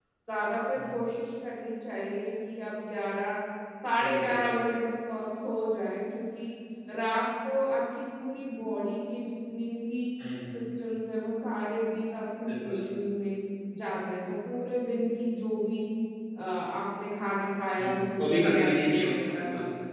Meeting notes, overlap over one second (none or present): present